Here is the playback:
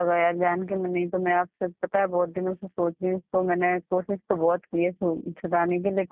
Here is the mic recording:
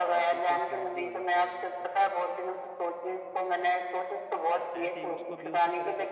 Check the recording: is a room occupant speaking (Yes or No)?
Yes